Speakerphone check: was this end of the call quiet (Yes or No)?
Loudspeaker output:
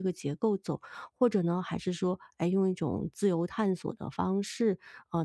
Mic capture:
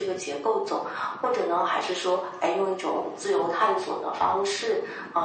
Yes